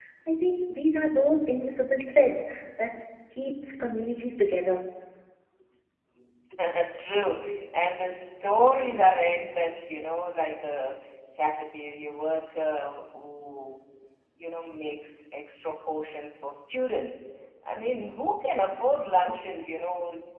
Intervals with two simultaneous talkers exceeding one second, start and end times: none

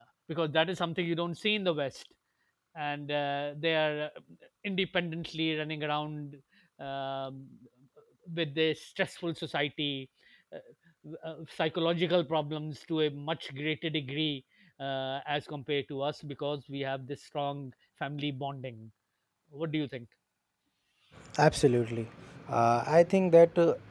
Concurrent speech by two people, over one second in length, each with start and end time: none

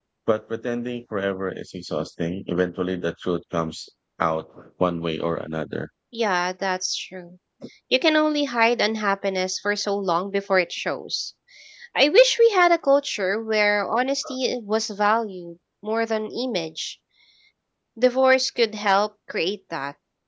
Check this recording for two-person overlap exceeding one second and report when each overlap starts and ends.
none

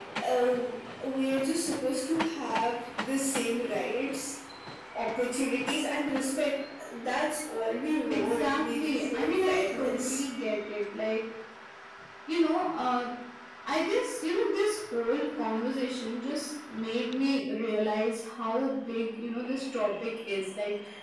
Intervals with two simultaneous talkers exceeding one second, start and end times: 8.1-10.2

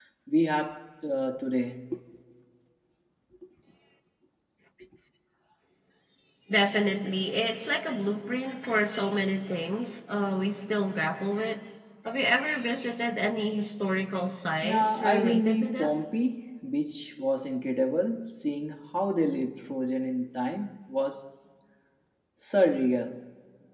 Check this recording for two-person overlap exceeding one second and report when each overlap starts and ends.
14.6-16.0

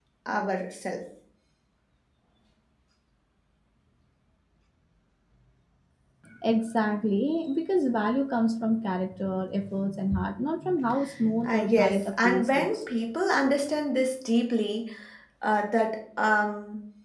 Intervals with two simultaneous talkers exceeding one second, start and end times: 11.4-12.8

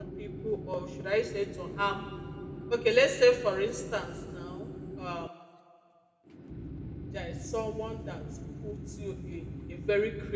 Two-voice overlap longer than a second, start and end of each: none

